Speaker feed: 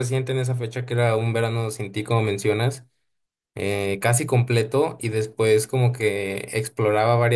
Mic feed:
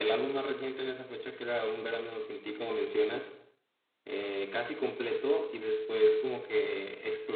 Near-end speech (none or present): none